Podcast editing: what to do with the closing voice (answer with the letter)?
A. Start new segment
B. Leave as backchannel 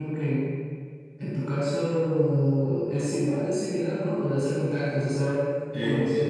B